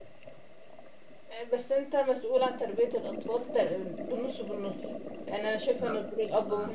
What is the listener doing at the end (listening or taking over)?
taking over